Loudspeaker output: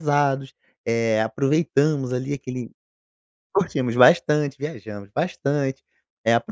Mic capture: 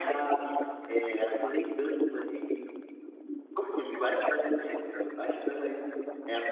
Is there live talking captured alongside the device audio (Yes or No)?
No